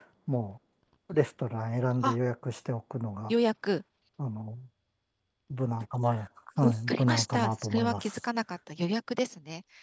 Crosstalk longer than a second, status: present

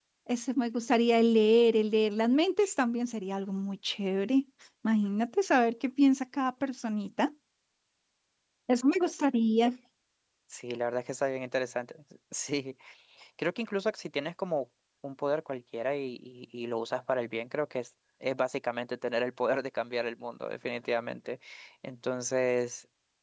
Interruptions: none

